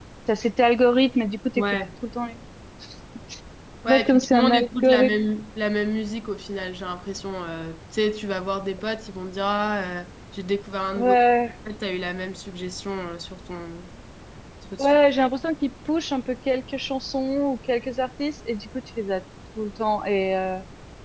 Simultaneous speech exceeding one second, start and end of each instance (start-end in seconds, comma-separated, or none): 3.9-5.2